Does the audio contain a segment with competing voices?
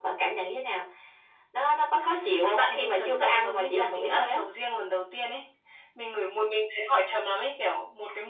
Yes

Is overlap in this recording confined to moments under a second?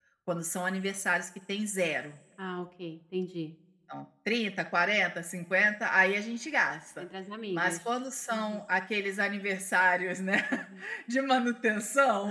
Yes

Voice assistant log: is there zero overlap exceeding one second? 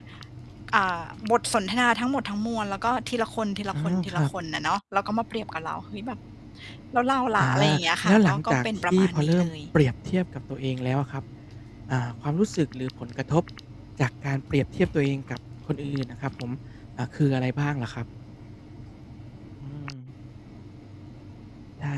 No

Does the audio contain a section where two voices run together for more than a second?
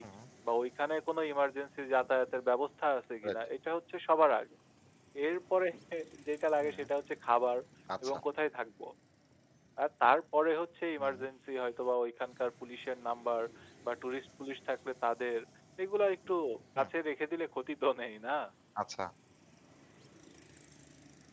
No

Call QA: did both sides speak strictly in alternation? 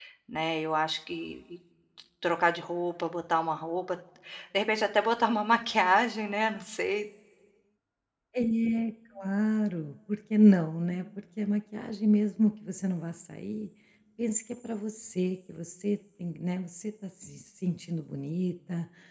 Yes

